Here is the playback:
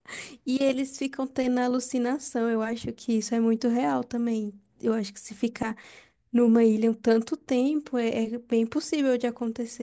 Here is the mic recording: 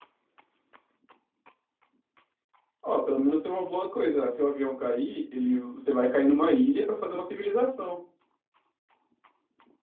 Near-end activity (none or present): present